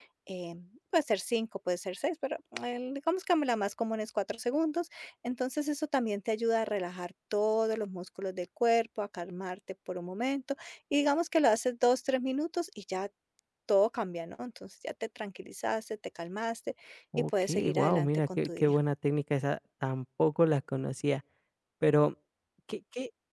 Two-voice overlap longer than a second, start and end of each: 17.2-18.8

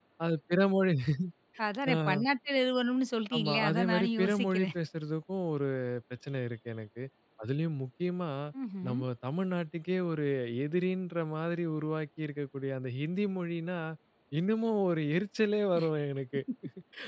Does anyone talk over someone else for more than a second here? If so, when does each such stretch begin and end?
3.4-4.7

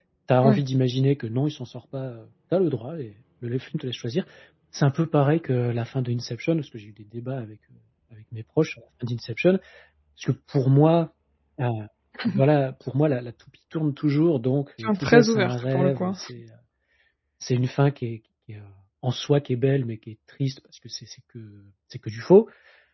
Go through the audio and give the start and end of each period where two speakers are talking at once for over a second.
14.8-16.2

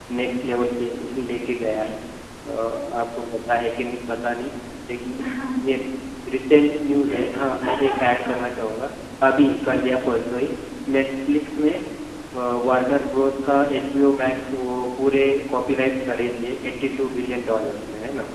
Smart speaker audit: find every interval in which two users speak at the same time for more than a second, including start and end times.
7.1-8.3

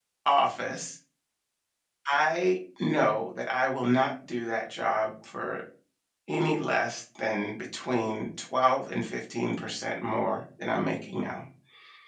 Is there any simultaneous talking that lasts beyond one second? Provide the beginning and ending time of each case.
none

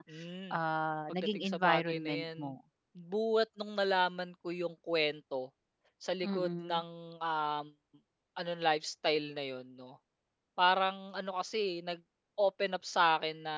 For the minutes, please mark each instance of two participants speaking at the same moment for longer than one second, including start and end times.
1.1-2.4

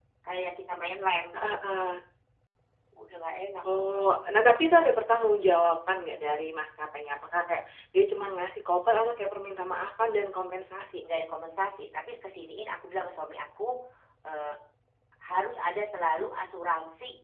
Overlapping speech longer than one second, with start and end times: none

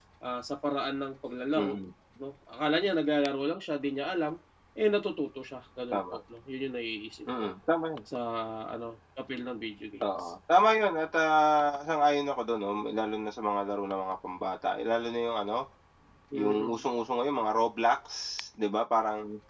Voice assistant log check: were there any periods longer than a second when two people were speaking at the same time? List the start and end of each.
none

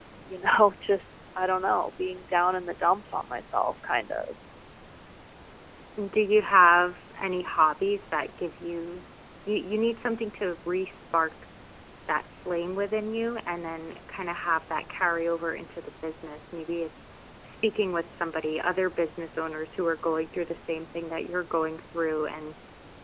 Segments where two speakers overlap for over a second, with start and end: none

